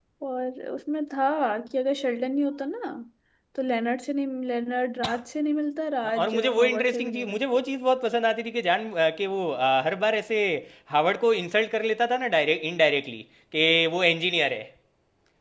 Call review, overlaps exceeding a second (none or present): present